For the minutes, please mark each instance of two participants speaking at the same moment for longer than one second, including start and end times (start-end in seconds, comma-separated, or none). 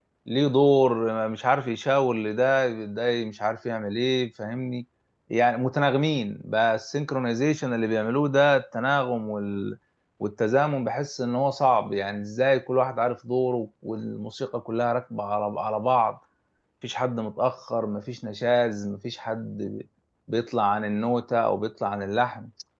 none